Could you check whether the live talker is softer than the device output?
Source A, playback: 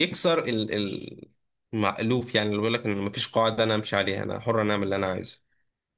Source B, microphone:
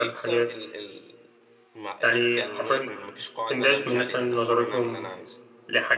No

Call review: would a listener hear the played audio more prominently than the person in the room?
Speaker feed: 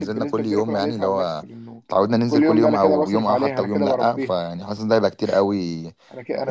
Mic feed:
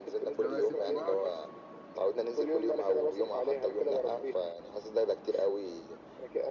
Yes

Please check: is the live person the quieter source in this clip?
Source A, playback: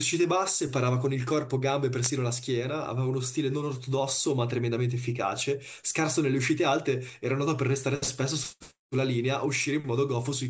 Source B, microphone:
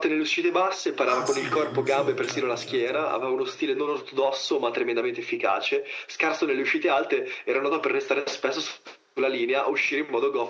Yes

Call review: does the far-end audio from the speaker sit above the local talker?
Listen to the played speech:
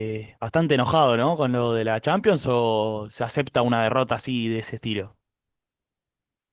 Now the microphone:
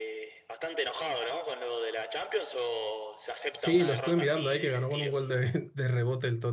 No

